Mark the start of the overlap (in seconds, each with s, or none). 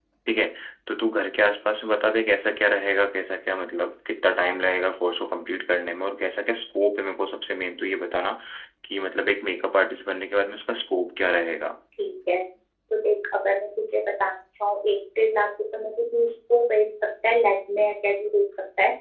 none